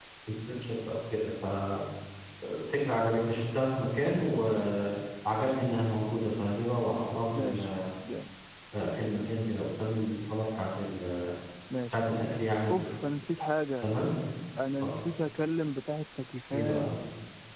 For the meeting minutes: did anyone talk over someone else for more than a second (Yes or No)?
No